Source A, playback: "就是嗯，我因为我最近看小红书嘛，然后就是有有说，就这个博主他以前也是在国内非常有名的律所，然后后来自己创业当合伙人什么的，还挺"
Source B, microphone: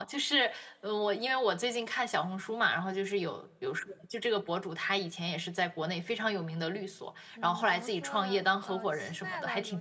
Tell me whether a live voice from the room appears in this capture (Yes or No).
Yes